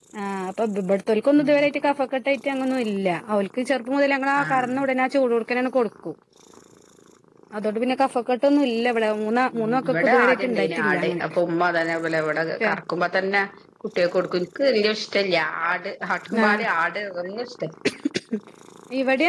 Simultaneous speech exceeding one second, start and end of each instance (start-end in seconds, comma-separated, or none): 9.6-11.2